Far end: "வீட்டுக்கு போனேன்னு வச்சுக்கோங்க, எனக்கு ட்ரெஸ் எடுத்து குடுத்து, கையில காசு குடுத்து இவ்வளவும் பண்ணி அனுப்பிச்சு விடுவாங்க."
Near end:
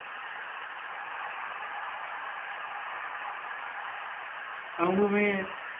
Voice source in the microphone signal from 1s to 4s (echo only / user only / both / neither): neither